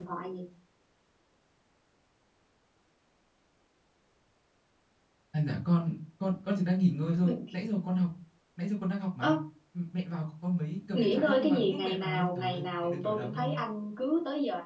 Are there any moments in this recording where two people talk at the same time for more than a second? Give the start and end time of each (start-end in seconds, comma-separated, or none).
10.9-13.6